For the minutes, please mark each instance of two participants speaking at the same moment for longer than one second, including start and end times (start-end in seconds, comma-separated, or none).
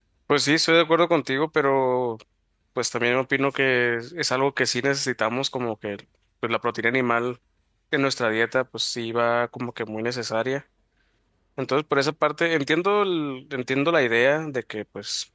none